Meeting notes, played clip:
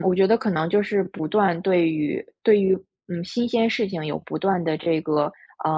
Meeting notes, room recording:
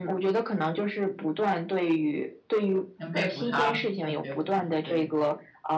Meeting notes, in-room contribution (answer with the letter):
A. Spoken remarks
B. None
A